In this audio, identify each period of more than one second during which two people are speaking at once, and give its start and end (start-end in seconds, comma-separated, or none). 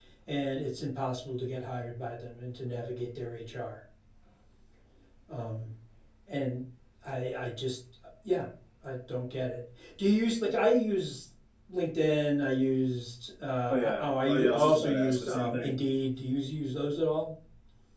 13.7-15.8